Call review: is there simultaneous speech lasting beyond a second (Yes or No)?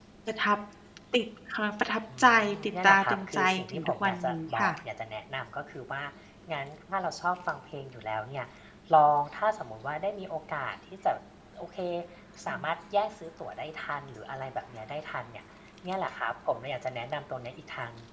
Yes